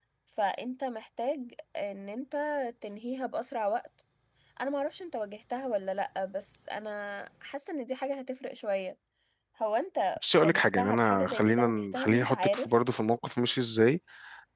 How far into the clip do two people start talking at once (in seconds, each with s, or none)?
10.4 s